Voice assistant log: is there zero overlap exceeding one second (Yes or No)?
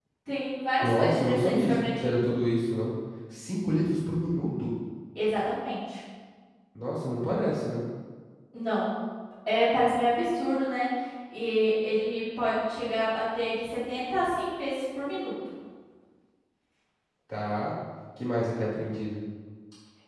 No